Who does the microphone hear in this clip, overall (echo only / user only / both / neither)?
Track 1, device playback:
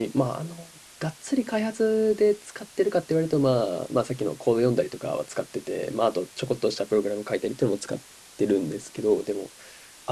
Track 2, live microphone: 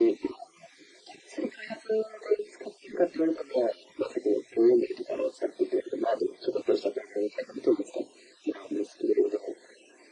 echo only